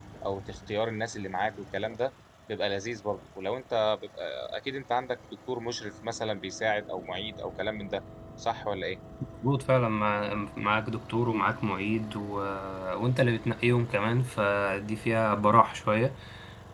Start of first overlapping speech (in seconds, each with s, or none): none